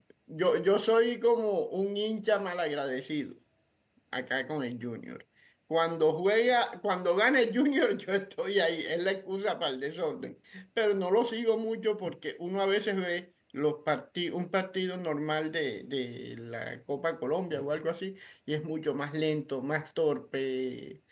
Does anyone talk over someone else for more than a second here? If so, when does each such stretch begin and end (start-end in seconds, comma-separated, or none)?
none